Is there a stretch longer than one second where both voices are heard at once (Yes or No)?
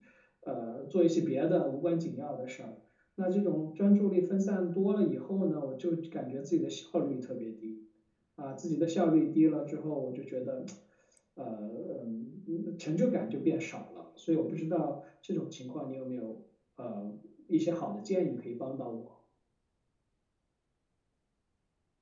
No